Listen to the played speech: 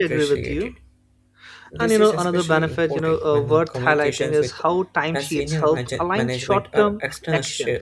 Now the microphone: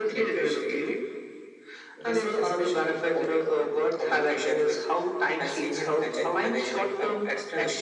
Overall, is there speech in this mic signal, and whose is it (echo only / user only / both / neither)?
echo only